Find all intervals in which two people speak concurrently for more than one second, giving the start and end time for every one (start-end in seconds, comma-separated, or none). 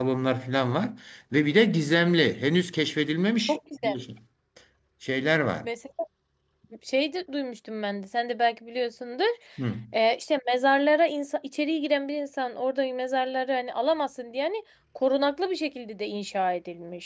none